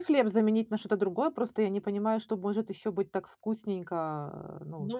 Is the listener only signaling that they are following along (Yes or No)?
No